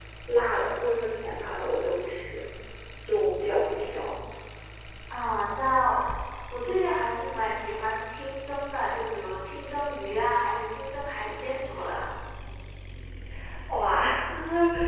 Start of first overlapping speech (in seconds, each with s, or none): none